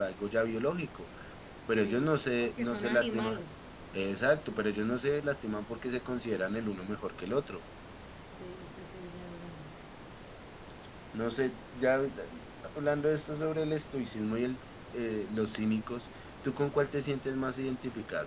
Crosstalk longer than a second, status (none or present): present